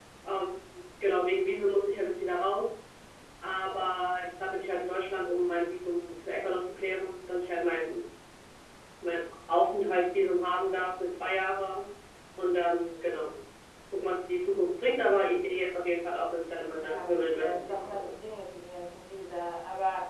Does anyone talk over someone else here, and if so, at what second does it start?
17 s

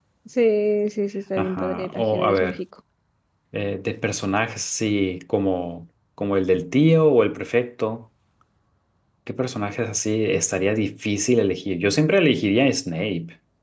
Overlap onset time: 1 s

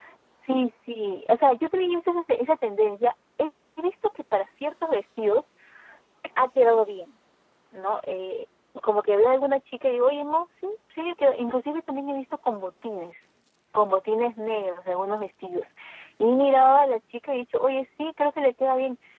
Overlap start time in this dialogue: none

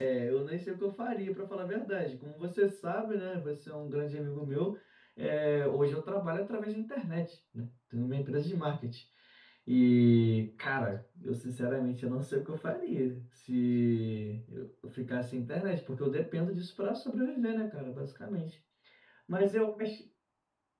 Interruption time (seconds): none

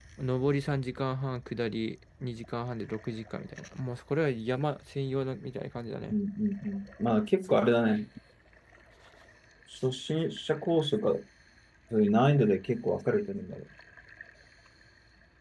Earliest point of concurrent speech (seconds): none

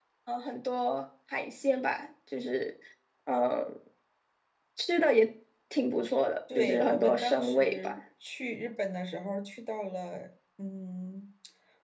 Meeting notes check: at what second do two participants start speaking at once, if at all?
7 s

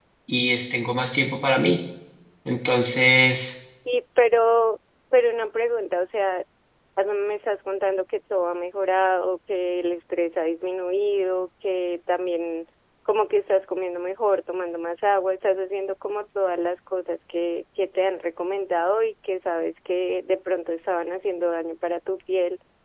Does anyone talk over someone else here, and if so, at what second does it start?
none

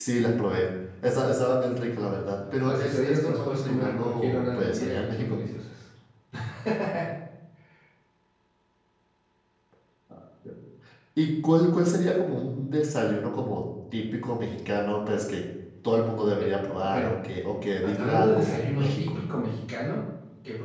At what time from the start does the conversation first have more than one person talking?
3 s

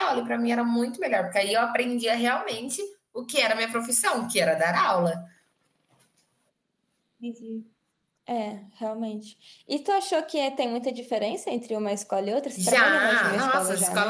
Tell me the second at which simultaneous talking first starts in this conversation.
13 s

